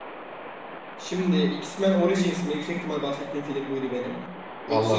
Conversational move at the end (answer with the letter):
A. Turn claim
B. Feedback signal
B